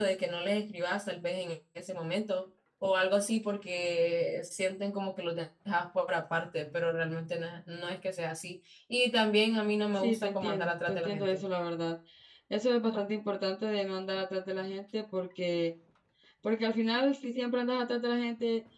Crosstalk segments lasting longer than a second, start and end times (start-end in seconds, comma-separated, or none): 10.0-11.4